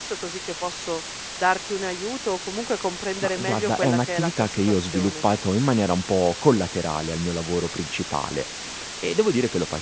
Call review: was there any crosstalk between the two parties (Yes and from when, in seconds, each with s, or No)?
Yes, from 3.2 s